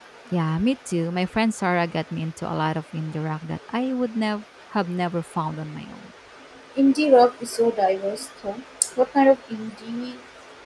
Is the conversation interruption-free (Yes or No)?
Yes